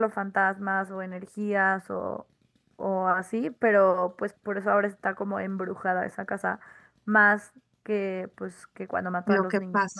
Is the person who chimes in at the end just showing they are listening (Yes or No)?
No